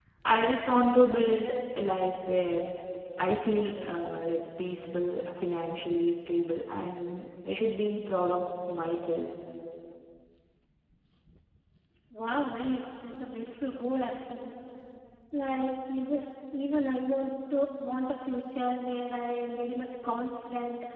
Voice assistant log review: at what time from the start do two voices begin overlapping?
none

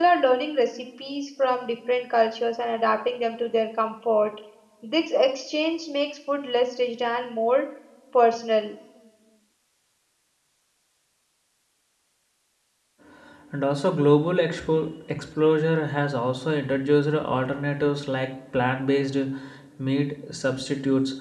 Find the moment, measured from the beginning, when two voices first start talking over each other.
none

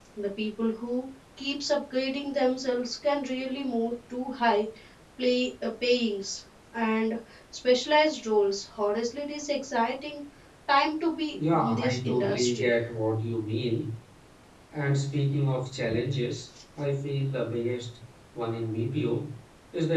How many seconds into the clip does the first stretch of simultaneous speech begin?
11 s

